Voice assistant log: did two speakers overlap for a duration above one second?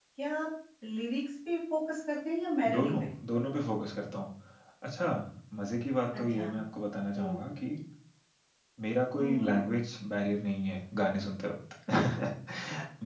No

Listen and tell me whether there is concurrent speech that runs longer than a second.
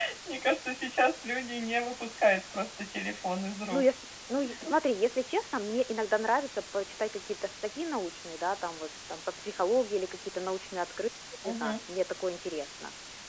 No

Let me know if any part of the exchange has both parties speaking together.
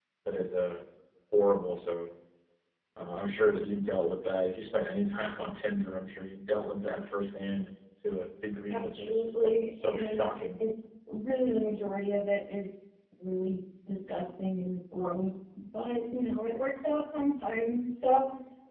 Yes, from 8.7 s

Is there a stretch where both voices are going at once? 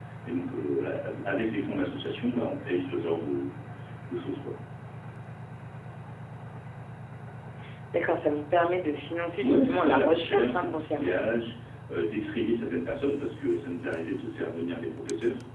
Yes, from 9.4 s

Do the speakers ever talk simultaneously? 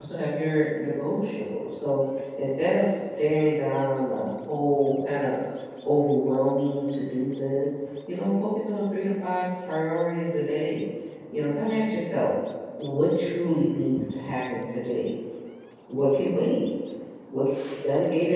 No

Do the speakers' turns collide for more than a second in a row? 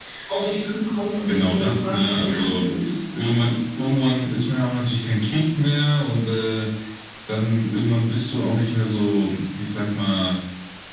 Yes, from 1.3 s

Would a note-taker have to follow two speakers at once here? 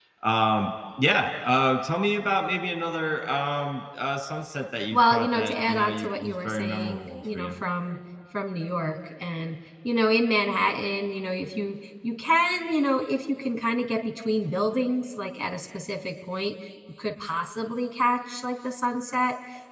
Yes, from 4.9 s

